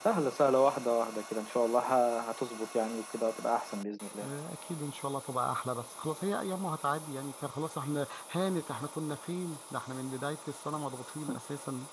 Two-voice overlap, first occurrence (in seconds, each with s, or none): none